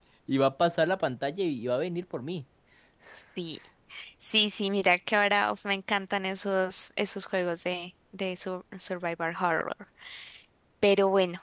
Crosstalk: none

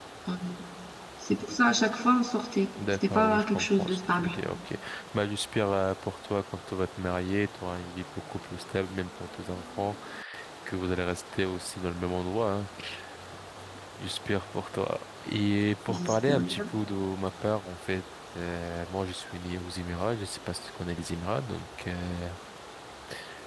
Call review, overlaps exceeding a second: present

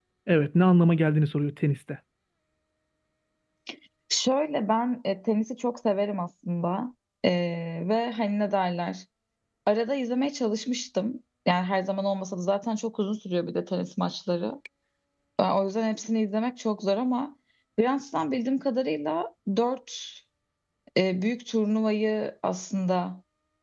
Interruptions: none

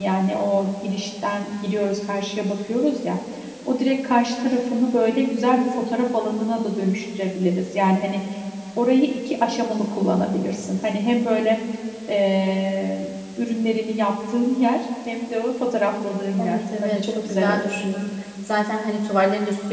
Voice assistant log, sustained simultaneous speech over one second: present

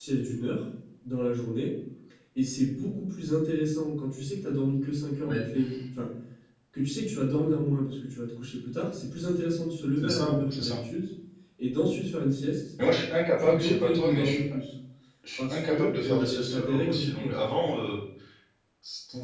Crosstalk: present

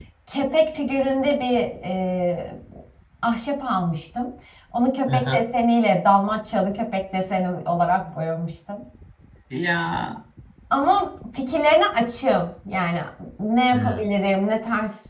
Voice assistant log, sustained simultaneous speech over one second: none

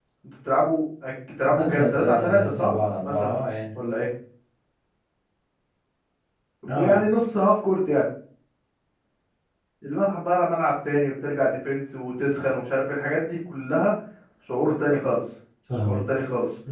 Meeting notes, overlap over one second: present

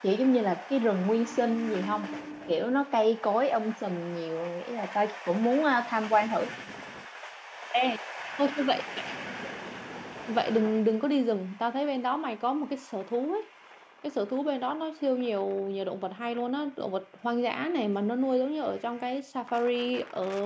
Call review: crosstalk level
none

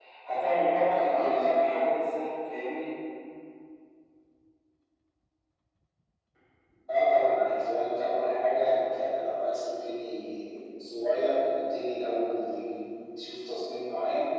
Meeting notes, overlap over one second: none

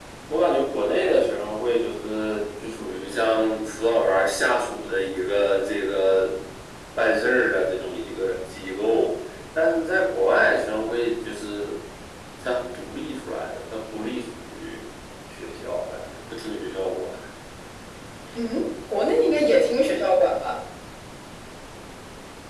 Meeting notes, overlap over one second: none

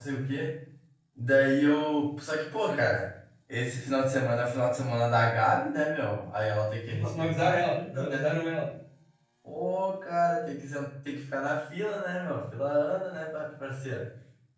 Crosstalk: present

